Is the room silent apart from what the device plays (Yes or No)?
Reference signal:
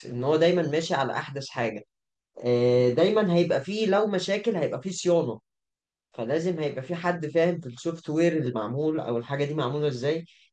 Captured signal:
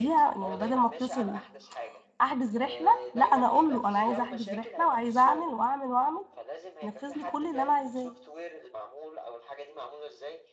No